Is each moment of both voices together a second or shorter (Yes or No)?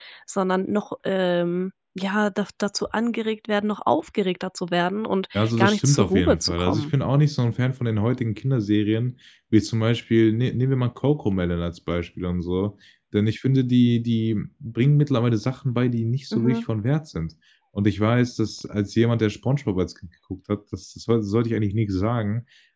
No